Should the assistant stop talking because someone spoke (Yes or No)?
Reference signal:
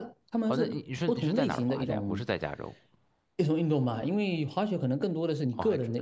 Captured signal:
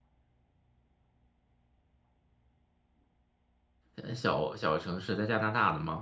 Yes